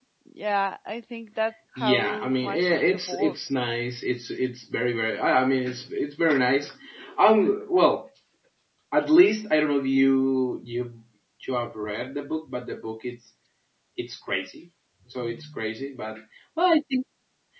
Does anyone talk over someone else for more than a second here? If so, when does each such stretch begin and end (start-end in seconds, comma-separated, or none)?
1.8-3.3